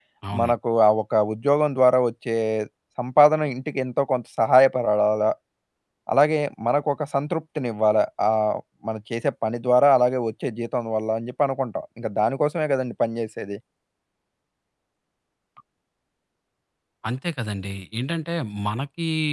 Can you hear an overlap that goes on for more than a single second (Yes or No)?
No